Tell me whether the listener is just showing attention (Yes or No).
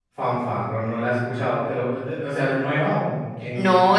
No